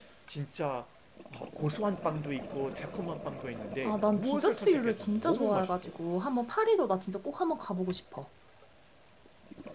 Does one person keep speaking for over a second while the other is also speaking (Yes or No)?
Yes